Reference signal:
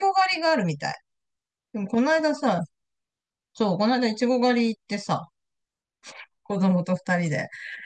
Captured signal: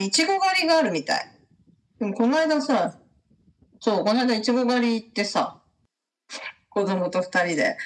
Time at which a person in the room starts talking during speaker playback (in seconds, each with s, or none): none